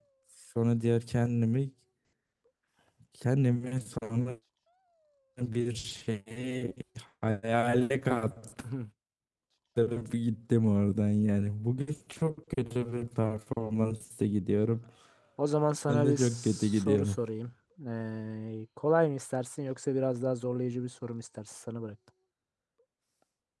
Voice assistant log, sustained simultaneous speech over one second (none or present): present